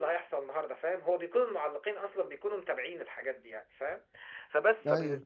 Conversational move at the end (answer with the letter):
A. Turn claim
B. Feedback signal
B